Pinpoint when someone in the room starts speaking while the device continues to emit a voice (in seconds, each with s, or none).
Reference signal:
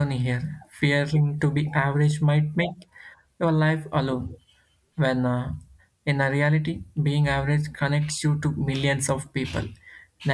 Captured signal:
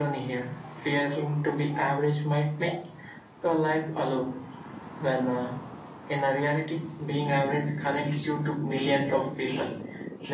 none